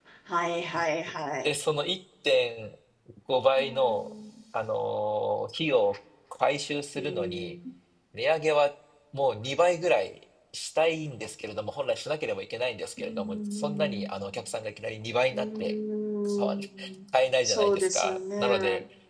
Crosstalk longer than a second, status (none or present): present